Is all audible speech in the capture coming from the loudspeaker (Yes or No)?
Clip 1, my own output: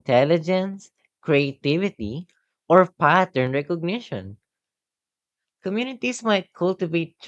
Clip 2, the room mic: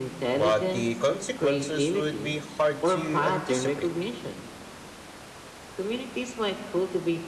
No